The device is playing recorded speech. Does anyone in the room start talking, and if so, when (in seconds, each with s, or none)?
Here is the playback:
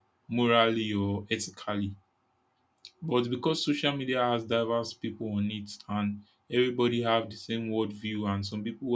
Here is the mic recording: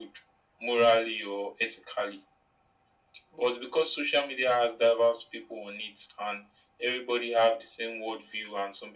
none